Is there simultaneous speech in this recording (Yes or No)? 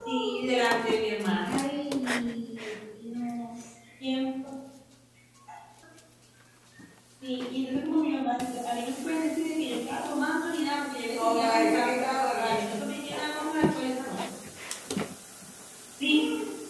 Yes